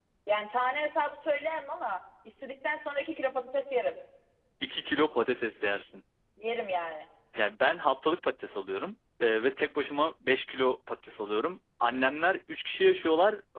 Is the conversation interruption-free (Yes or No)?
Yes